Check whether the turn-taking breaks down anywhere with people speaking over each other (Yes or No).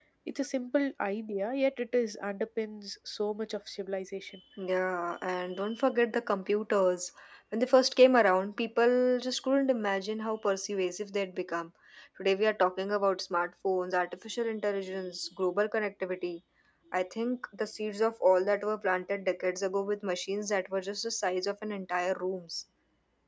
No